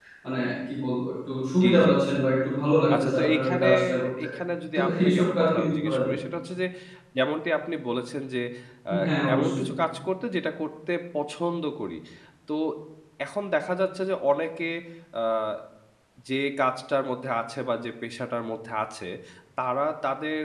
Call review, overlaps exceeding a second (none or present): present